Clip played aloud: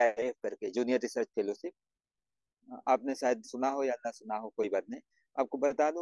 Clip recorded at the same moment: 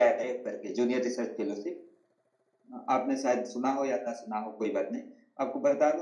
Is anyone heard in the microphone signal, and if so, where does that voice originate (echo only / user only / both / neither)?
echo only